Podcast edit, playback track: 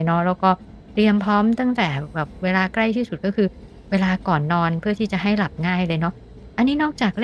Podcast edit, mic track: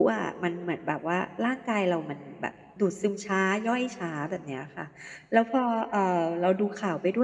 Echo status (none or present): none